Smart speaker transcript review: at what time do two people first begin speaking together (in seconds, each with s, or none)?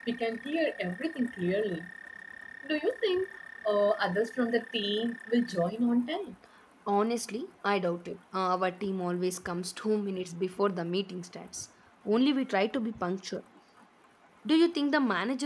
none